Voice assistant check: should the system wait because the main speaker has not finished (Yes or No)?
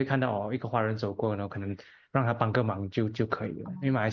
Yes